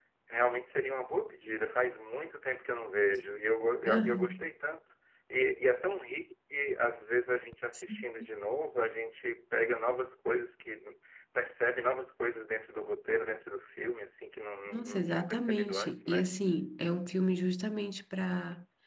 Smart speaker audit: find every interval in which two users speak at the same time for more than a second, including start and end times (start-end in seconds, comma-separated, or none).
14.7-16.3